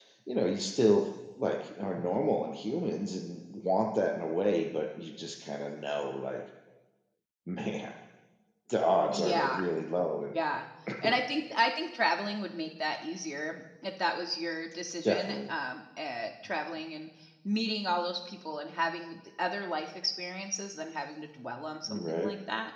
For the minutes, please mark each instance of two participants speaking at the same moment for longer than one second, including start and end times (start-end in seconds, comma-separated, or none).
none